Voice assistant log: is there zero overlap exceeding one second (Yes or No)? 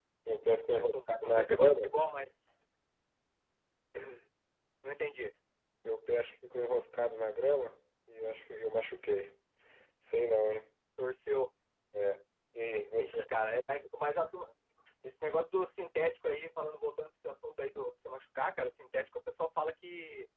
No